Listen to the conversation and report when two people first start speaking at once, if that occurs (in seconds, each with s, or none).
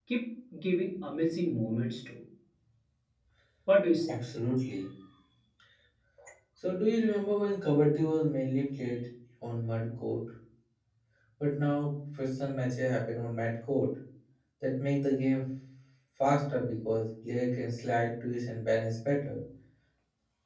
none